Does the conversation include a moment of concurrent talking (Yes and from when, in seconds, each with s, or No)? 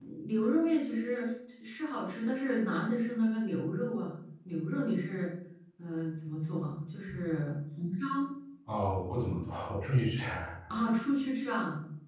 No